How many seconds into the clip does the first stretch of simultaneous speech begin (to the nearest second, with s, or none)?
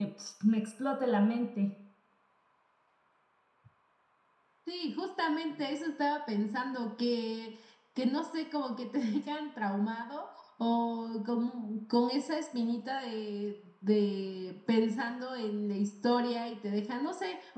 none